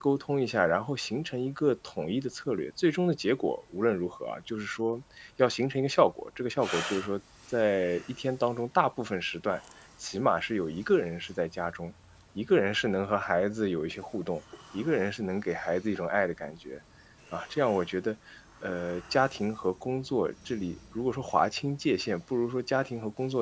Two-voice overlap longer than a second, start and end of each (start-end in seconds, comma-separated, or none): none